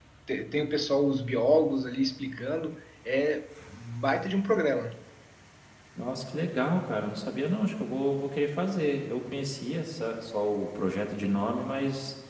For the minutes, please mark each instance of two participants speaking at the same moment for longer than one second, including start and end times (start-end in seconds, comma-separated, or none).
none